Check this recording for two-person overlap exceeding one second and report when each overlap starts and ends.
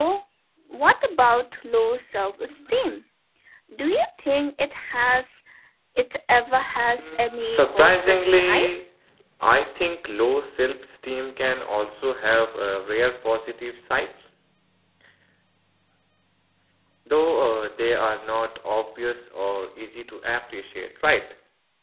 7.0-8.7

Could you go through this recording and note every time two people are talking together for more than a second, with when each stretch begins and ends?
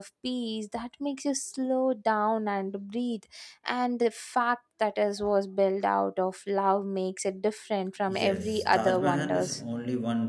8.2-9.6

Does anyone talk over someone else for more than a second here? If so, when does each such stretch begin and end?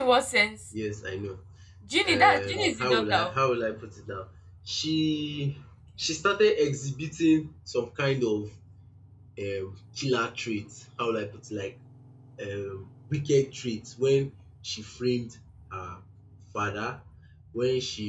2.0-3.3

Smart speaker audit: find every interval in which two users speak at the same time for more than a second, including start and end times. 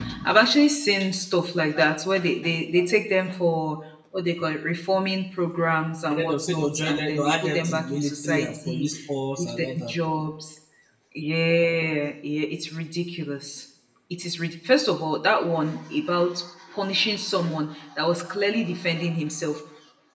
6.1-8.9

